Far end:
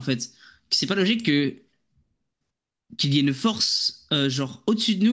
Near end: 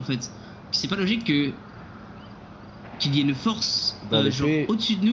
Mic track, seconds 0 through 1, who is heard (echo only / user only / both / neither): echo only